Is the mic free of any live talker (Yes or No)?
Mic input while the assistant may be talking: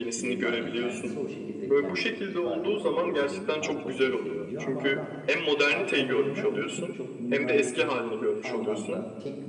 No